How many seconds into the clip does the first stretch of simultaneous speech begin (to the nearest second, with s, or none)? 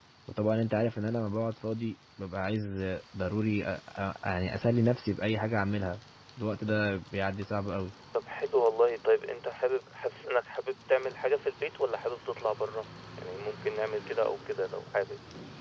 none